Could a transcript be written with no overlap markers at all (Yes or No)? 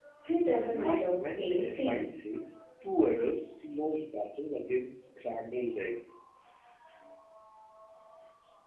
No